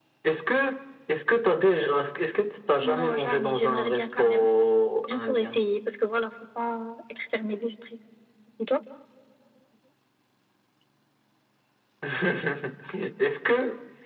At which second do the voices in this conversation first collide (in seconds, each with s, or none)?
2.8 s